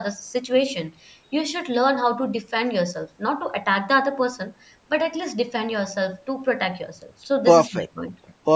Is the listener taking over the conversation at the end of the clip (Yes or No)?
Yes